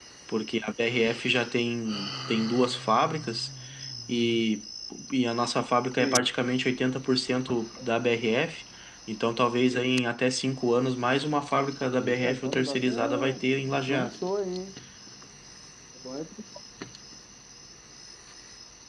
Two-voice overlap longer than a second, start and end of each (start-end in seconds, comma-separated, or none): 12.0-14.2